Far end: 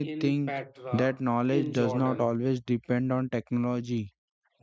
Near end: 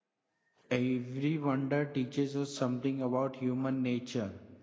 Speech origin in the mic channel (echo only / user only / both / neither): user only